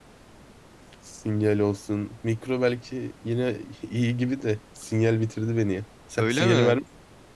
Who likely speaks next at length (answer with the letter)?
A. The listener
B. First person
A